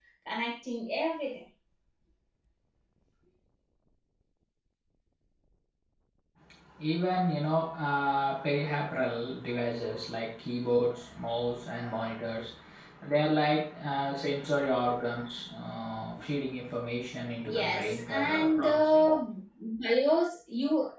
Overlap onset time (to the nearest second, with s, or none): 17 s